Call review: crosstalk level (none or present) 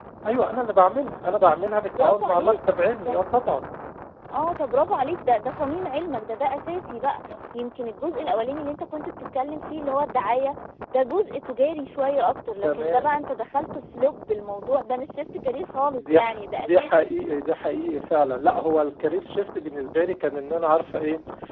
present